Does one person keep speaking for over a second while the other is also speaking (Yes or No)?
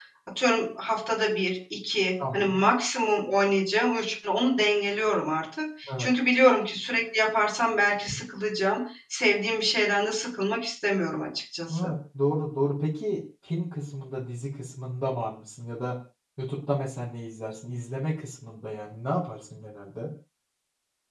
No